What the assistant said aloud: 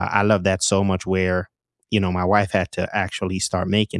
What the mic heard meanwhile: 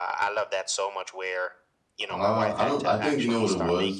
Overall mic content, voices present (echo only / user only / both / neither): both